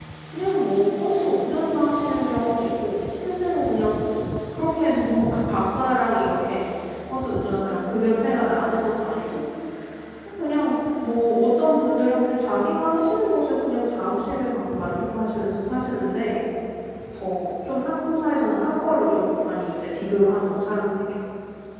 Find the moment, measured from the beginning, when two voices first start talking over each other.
none

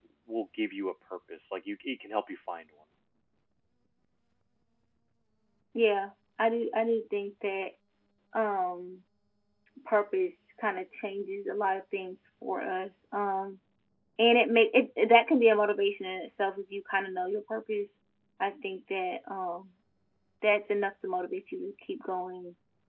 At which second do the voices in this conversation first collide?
none

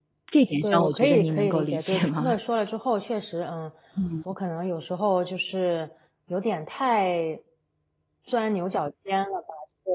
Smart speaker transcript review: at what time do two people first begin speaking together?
0.6 s

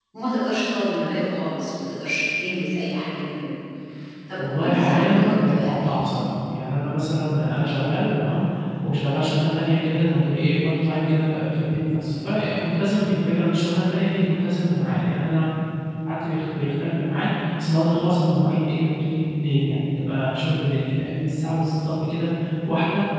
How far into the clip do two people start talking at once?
4.4 s

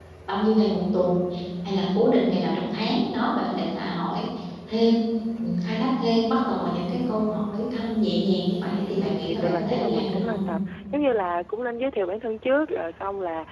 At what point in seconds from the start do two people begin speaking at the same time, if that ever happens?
8.9 s

